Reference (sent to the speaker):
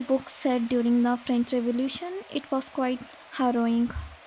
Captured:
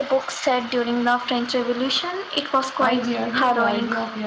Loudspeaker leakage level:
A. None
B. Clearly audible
B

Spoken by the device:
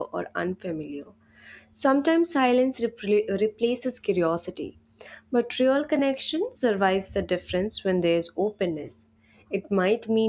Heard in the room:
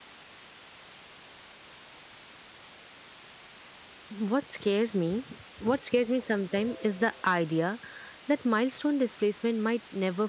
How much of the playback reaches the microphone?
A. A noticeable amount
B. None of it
B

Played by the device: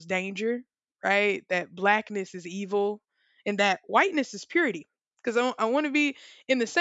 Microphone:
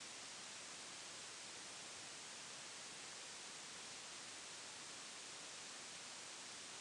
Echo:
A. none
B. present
A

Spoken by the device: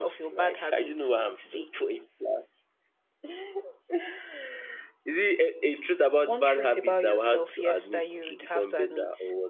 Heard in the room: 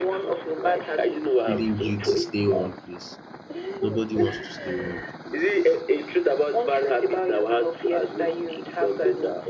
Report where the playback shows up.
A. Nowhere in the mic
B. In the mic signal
B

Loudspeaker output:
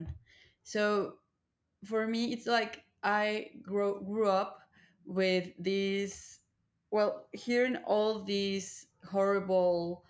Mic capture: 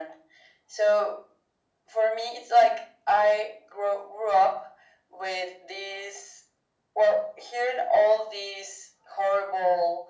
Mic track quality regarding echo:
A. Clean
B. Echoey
B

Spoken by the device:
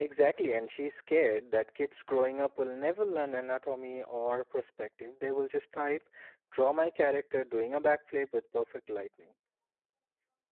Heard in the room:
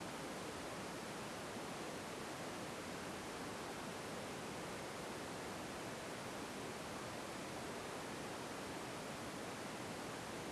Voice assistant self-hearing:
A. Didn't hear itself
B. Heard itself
A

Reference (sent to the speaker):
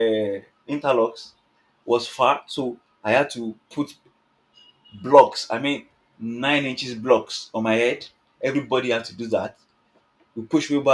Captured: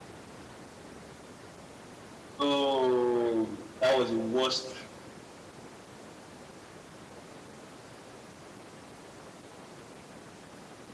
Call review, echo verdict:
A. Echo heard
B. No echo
B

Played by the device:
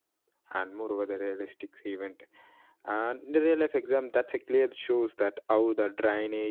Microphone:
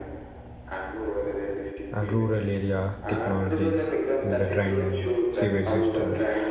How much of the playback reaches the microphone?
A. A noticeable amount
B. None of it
A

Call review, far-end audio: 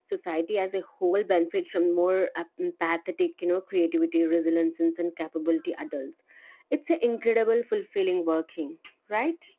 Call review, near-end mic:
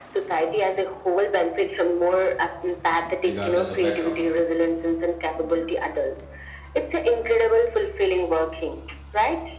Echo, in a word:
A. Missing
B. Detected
B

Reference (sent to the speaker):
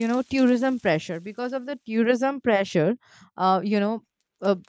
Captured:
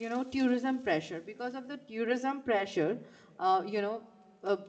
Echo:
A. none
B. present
B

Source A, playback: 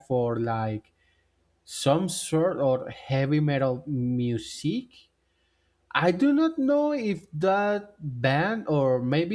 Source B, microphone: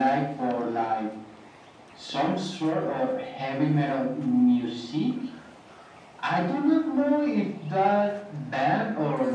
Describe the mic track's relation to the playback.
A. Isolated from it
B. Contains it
B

